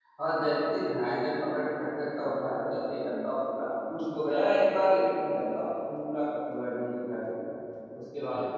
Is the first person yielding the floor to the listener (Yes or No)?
No